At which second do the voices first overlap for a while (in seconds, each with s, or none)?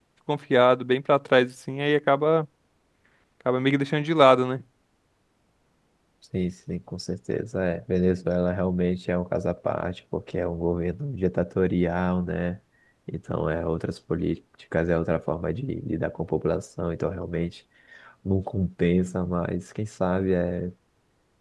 none